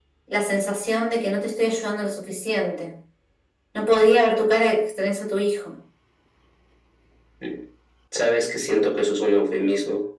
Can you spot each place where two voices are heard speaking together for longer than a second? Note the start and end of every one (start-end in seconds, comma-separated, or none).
none